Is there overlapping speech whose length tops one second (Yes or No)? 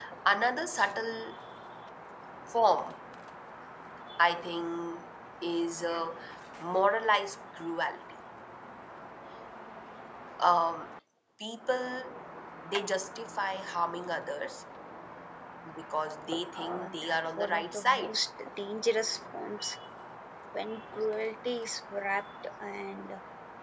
Yes